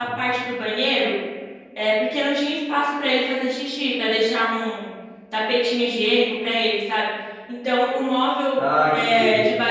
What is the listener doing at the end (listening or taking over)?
listening